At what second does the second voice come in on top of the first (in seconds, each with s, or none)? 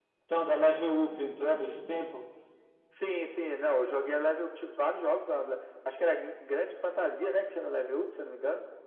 none